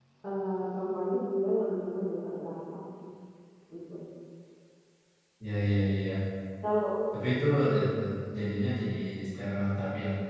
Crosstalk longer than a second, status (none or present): none